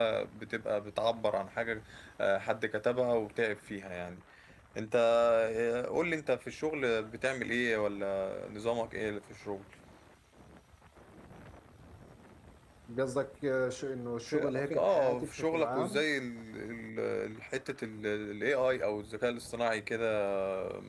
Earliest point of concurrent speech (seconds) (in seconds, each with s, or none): 14.3 s